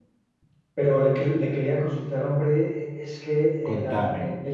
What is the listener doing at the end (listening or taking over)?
listening